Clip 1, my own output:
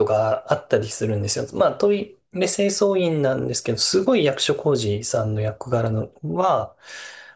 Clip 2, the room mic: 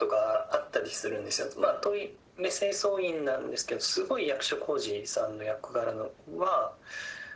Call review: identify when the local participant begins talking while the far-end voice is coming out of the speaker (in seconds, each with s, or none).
none